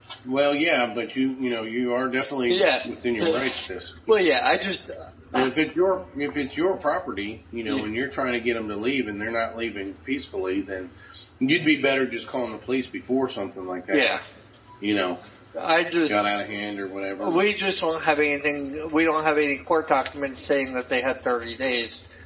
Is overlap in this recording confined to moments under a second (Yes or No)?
Yes